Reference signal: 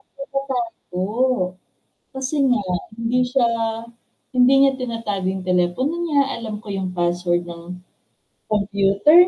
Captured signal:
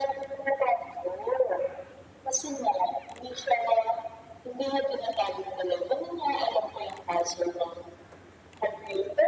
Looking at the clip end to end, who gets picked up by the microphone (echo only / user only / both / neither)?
echo only